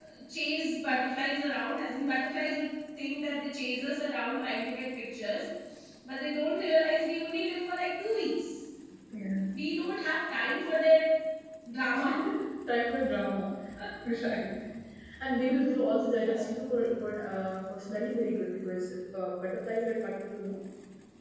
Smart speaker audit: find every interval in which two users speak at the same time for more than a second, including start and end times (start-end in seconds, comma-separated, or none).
none